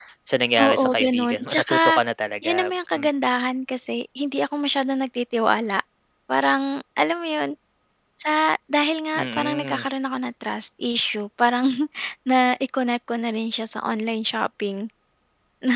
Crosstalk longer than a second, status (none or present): present